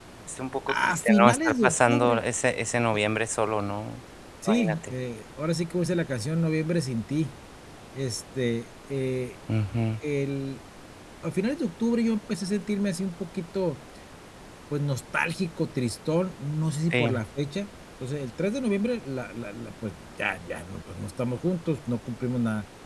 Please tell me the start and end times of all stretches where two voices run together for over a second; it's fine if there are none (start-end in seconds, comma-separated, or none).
0.7-2.2